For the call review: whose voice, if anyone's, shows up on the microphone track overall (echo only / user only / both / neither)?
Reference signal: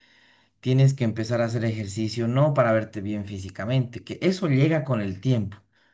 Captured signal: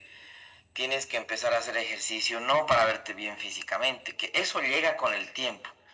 echo only